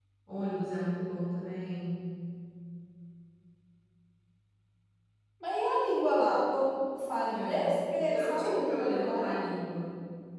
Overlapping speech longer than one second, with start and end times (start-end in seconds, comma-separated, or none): 8.1-9.3